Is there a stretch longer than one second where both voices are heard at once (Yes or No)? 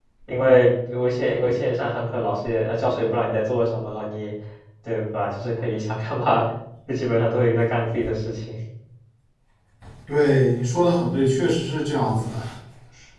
No